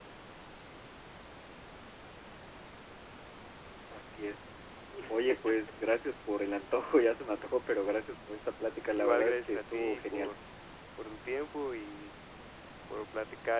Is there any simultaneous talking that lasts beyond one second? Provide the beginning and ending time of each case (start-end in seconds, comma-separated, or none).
8.9-10.3